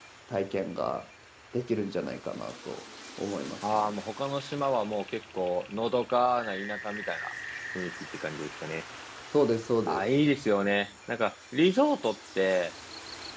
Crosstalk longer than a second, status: none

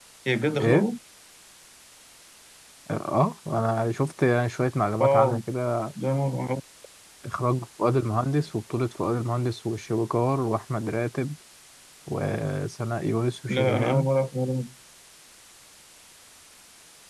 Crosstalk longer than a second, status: none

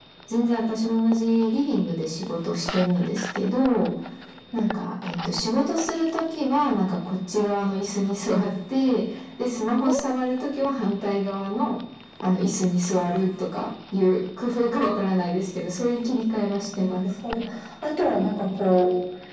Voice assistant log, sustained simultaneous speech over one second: none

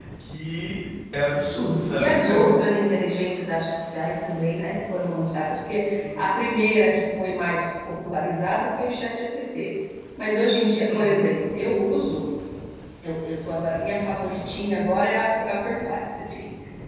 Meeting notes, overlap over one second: none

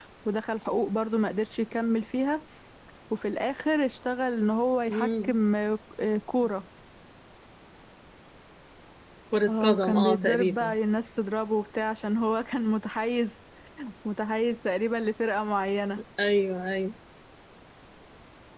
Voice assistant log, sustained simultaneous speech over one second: present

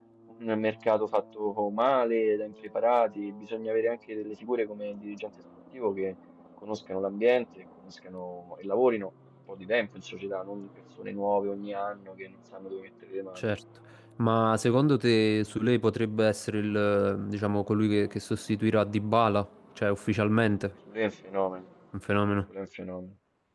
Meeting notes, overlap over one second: none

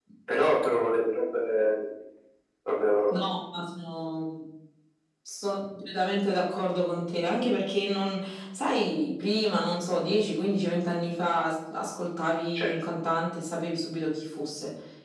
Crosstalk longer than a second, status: none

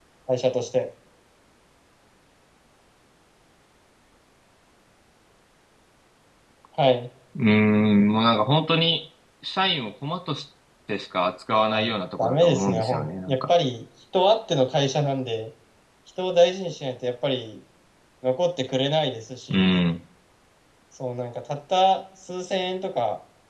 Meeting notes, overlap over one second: present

